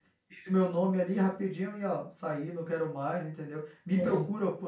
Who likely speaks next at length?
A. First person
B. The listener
A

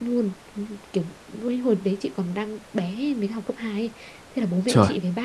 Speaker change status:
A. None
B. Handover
A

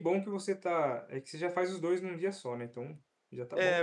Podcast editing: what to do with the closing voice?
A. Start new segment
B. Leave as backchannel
A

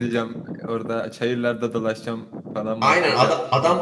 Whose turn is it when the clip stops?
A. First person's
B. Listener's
B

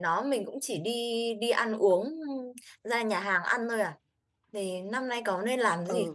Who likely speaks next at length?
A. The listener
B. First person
A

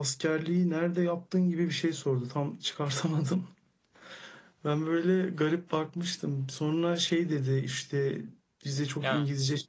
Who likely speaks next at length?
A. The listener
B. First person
B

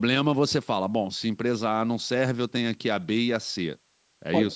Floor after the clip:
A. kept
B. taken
B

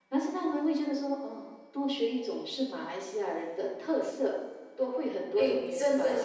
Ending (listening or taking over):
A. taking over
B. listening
A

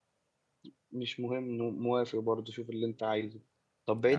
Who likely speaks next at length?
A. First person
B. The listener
A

